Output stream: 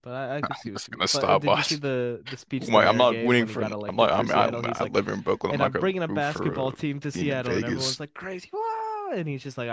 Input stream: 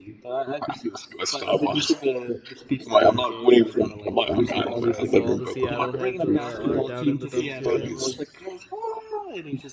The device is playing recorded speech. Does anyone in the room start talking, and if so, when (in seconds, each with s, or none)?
4.5 s